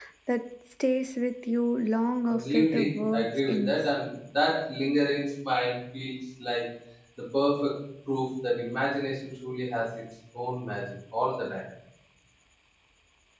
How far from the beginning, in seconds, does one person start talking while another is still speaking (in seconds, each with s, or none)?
2.3 s